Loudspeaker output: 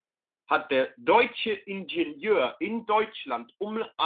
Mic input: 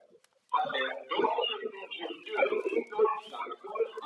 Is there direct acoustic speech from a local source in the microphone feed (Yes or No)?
No